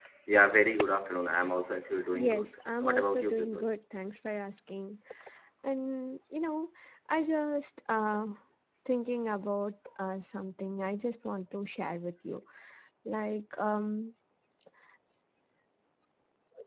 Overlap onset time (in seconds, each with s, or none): 2.1 s